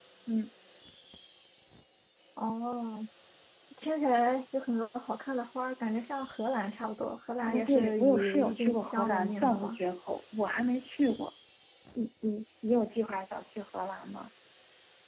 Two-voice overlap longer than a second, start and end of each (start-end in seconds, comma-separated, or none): 7.5-9.8